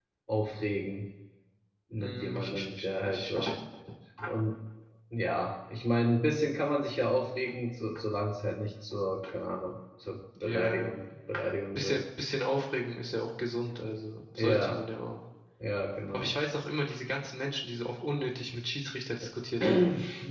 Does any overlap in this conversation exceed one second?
Yes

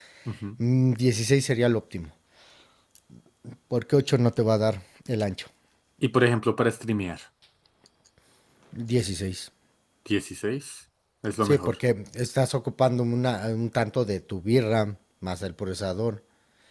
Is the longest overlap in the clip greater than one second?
No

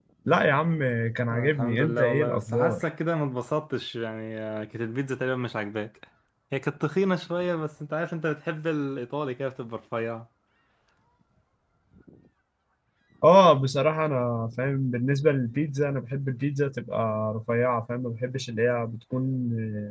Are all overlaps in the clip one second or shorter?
No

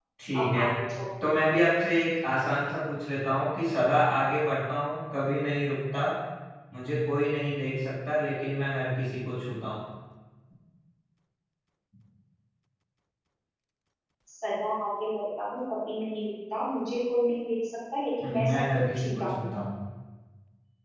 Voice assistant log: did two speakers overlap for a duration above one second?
Yes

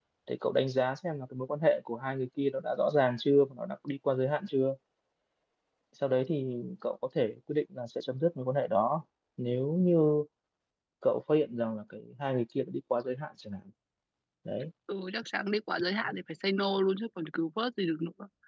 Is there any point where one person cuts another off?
No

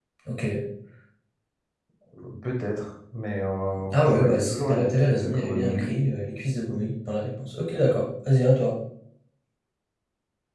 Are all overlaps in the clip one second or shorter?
No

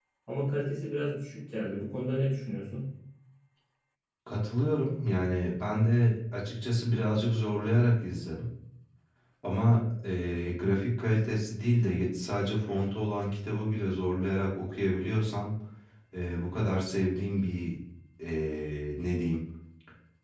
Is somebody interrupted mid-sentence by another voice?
No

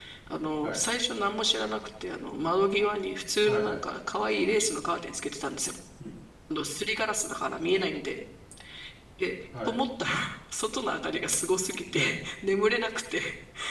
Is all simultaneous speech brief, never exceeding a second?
Yes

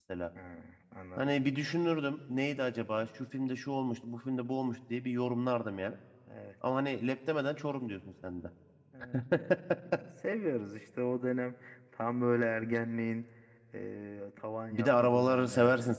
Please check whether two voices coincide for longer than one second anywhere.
Yes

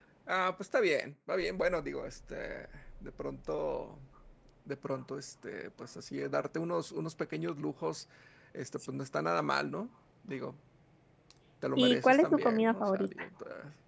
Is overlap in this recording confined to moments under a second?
No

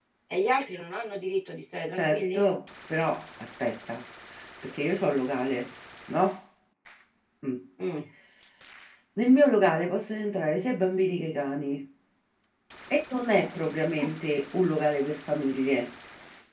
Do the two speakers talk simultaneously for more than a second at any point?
No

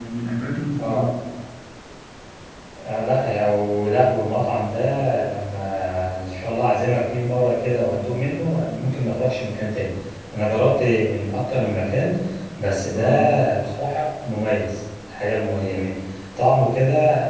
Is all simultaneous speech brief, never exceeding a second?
Yes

